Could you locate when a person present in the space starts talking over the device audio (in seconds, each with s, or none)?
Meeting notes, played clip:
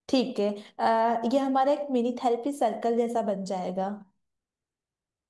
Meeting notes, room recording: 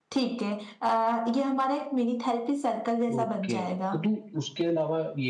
3.1 s